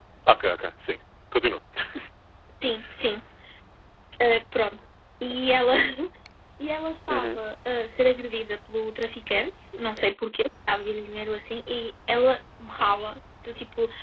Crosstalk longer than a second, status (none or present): none